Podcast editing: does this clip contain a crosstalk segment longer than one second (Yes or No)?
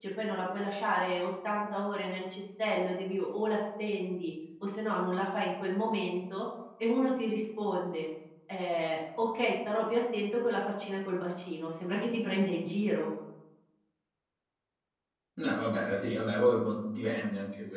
No